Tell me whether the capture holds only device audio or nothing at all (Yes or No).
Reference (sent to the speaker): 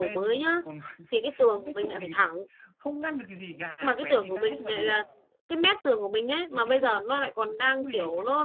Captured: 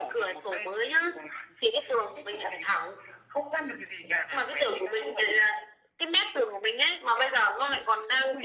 Yes